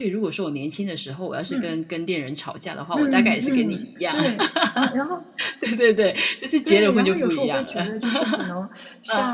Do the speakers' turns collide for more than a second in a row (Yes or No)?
Yes